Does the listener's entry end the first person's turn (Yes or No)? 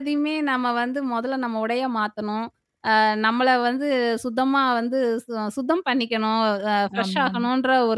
No